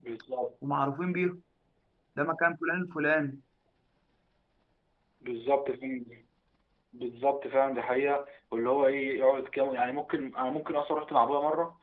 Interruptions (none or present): none